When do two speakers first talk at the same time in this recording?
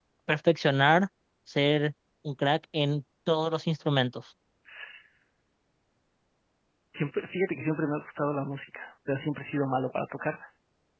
none

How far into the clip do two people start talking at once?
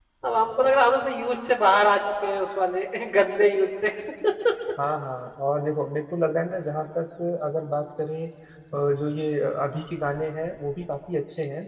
none

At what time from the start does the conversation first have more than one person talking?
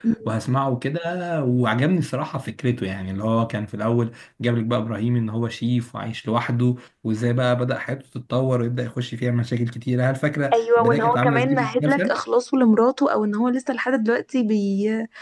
11 s

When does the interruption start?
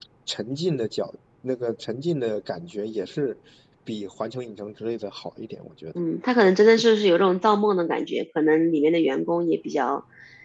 none

